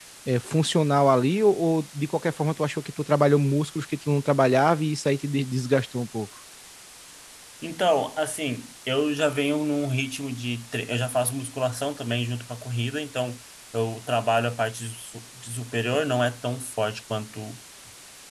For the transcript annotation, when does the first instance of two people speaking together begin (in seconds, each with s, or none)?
none